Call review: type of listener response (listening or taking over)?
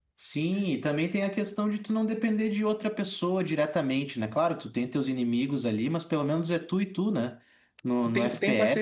taking over